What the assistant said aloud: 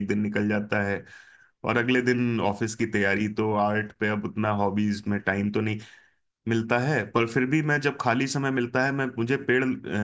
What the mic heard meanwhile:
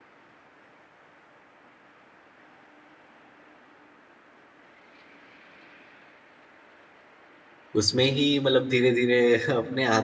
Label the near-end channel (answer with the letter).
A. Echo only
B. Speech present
B